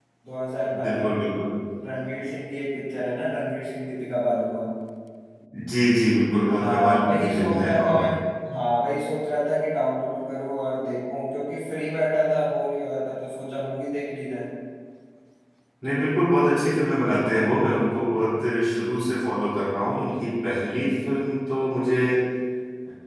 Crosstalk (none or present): present